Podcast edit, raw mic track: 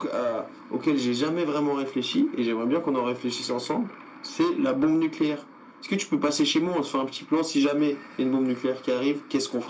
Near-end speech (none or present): none